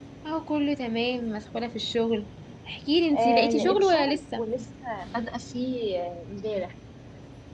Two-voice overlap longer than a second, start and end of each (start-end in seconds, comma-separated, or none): 3.1-4.4